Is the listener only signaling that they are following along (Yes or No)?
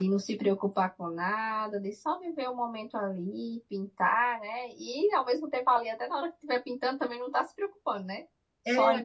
Yes